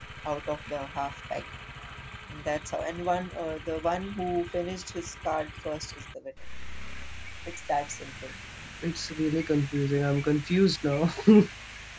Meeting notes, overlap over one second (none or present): none